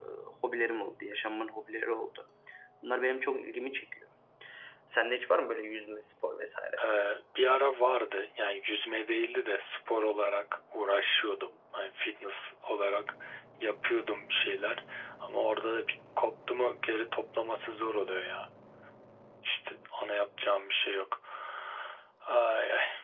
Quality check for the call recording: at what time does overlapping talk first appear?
none

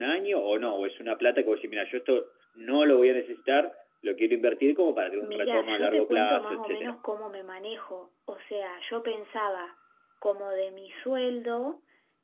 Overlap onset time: 5.2 s

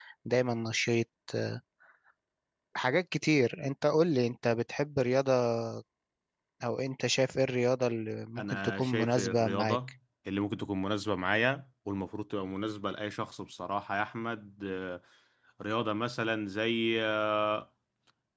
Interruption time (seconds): 8.4 s

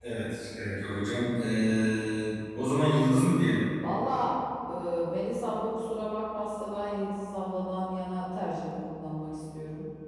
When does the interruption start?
none

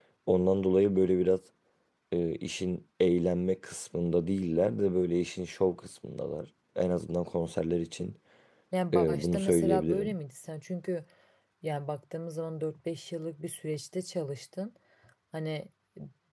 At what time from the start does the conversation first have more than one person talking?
8.9 s

